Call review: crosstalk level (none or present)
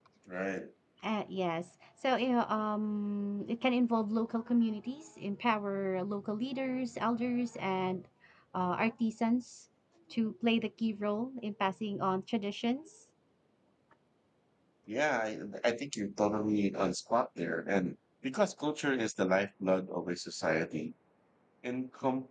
none